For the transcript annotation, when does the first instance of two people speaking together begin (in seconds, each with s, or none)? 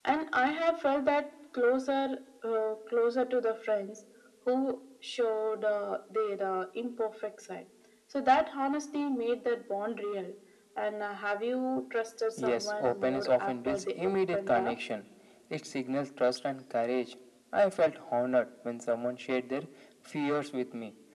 12.4 s